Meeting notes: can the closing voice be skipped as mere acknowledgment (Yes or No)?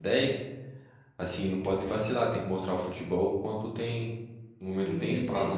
No